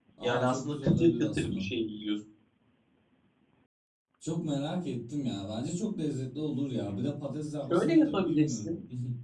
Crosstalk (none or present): present